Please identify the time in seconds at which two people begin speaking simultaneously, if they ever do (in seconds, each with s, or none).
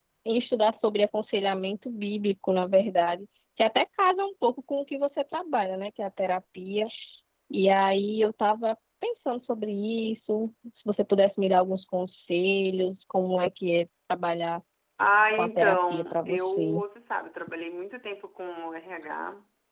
15.4 s